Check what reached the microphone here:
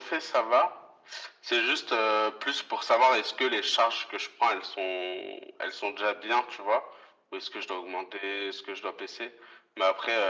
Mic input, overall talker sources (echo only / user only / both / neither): echo only